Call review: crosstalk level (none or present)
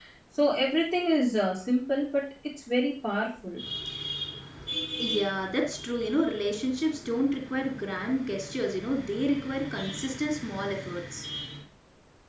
none